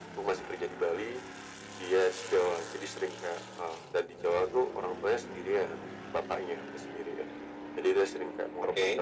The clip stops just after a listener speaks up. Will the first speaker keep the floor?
Yes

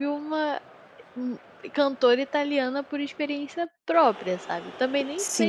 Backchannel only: No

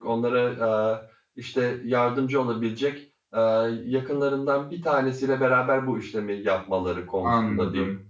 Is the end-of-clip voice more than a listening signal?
Yes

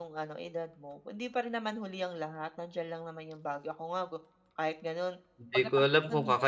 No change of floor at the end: No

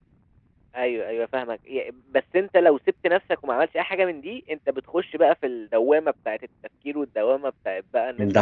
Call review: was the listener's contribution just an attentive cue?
Yes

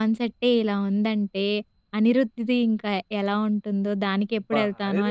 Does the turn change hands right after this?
Yes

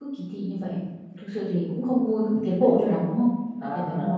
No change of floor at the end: No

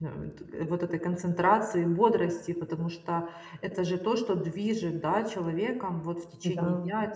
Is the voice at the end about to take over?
No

